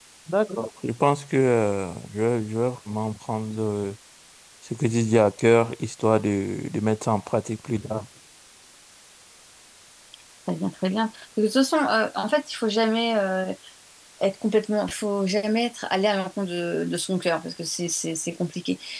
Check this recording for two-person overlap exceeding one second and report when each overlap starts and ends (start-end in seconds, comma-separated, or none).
none